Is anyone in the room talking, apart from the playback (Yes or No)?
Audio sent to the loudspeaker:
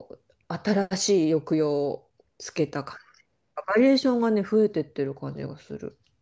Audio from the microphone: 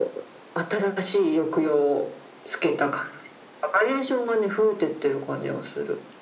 No